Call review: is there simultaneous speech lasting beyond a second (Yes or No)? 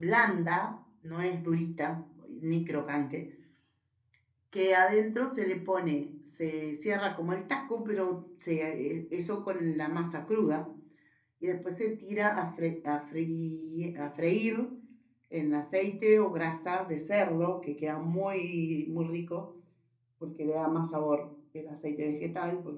No